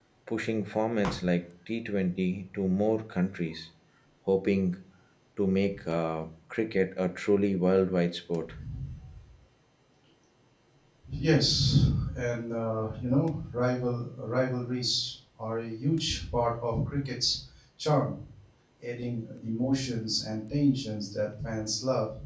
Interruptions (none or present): none